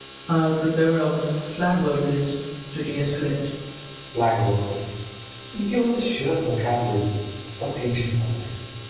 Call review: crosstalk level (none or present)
none